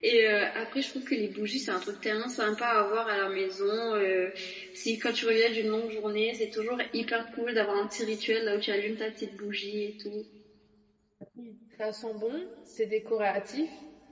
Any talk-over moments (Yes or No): No